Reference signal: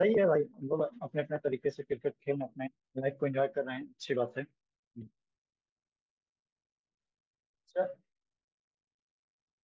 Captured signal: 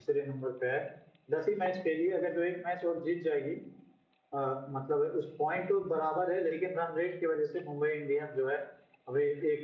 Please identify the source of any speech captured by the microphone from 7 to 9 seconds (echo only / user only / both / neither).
user only